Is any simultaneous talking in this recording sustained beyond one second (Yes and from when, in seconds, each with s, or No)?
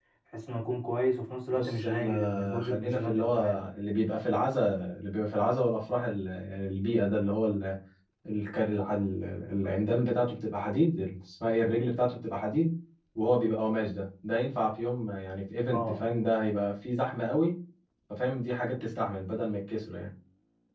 Yes, from 1.5 s